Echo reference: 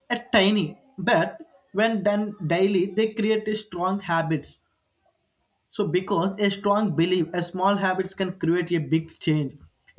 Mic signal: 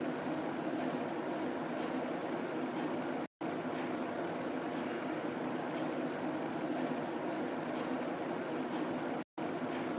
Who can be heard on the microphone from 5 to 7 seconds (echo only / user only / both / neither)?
neither